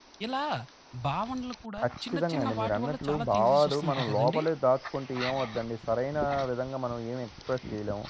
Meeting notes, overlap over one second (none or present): present